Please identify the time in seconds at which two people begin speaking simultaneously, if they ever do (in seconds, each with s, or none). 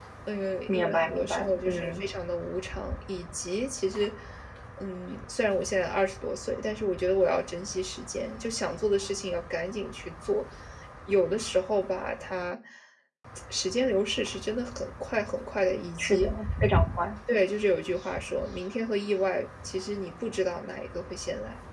0.7 s